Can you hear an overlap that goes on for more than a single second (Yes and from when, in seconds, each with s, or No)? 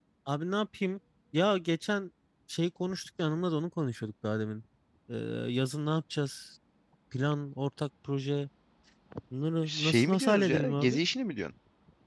Yes, from 9.6 s